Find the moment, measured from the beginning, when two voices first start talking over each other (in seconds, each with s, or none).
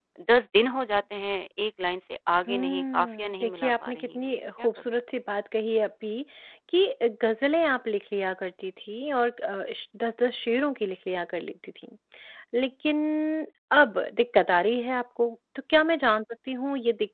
2.5 s